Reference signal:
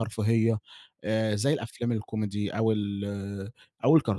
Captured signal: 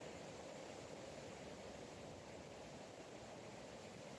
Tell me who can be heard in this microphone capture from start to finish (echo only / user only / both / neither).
neither